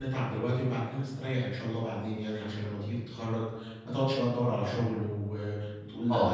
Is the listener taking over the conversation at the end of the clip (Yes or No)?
Yes